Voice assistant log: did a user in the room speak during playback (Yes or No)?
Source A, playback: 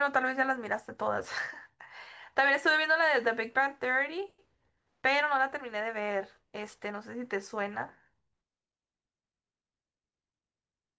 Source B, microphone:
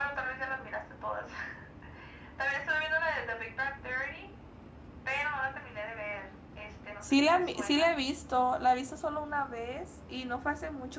Yes